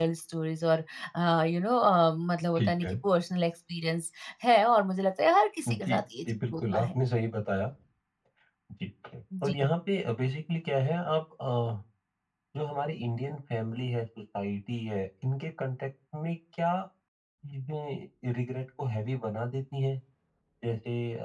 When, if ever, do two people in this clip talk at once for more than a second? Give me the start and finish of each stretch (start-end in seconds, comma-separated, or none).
5.7-7.0